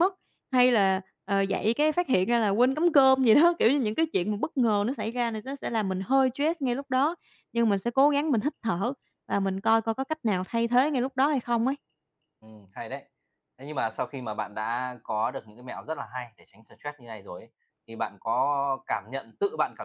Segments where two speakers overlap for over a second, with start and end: none

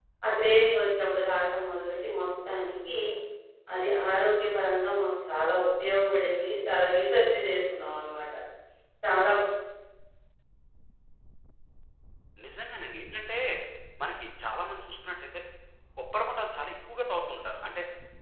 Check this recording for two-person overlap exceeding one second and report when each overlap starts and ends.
none

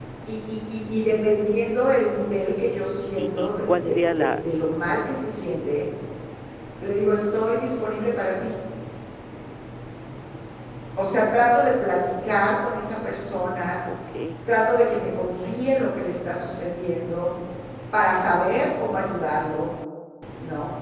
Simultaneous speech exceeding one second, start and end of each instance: 3.2-4.4

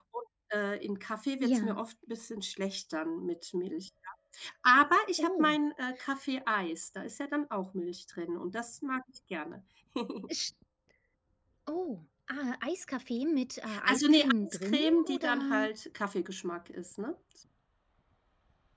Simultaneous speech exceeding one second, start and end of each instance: 13.9-15.7

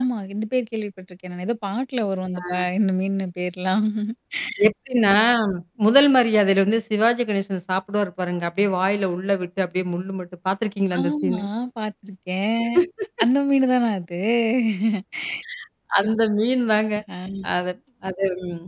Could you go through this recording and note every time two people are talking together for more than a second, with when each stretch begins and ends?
none

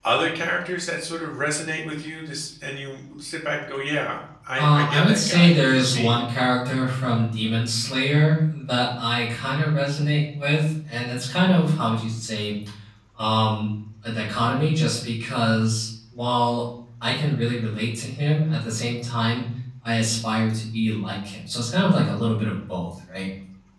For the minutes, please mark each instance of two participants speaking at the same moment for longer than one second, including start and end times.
4.6-6.2

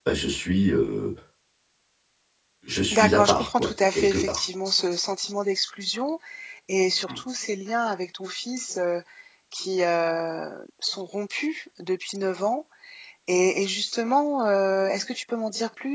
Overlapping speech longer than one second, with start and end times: 2.9-4.4

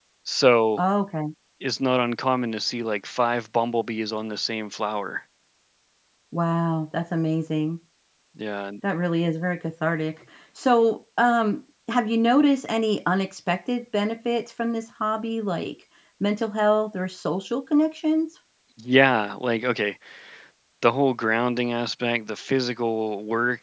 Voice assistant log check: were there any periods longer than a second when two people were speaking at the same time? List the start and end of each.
none

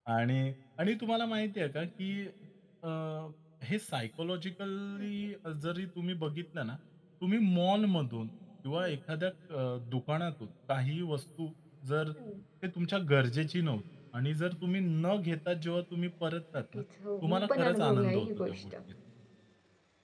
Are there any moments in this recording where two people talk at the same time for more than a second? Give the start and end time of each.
17.2-18.6

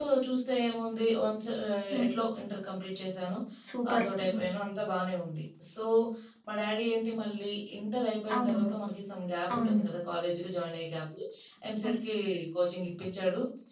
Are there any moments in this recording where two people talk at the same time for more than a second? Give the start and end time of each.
none

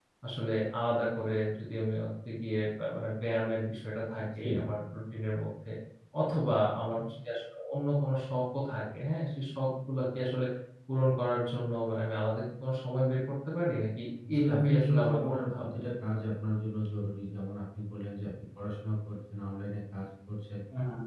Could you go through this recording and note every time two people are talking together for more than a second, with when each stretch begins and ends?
14.3-15.8

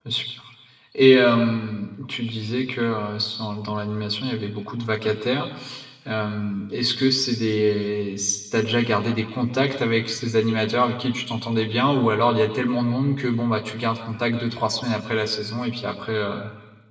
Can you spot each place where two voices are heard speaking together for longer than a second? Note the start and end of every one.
none

